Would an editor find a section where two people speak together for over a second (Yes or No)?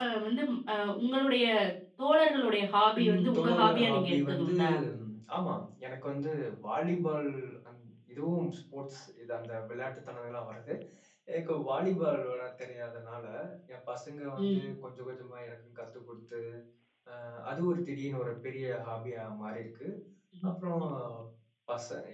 Yes